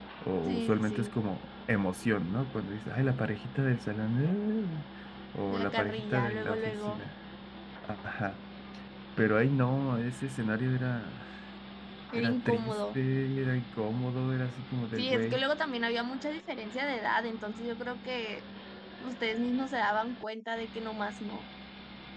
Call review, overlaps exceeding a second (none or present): present